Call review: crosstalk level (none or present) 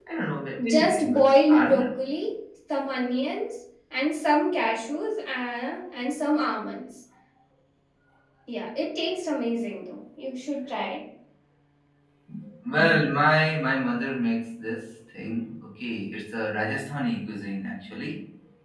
present